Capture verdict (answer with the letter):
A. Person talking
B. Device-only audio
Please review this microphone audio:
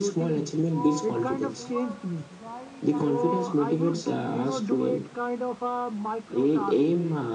A